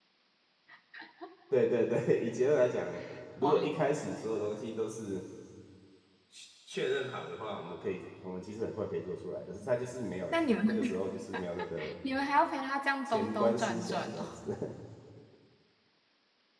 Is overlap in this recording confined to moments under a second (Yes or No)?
No